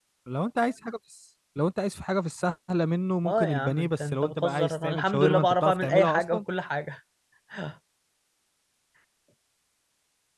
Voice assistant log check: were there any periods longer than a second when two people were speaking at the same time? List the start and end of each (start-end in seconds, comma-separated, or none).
3.3-6.4